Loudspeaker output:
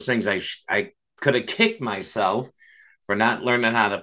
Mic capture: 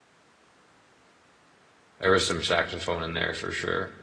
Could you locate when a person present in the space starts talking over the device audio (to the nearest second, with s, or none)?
2 s